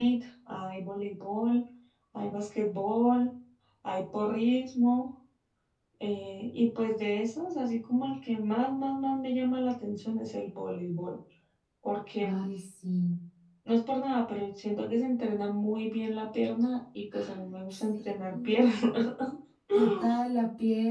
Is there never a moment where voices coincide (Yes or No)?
No